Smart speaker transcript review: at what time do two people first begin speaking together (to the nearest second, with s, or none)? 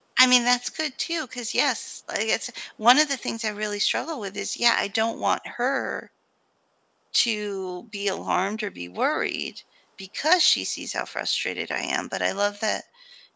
none